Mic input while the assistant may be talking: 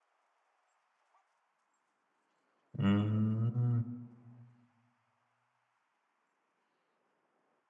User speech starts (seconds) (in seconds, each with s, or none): 2.8 s